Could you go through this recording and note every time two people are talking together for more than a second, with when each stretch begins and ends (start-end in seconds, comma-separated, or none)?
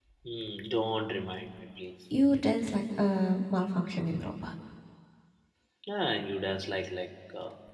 none